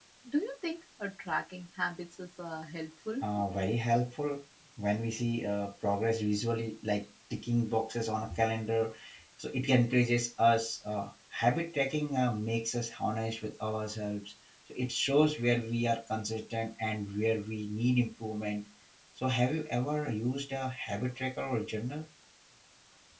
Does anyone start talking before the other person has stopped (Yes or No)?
No